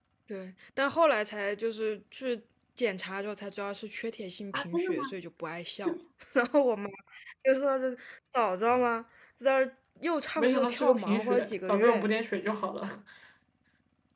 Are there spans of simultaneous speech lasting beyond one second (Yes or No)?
Yes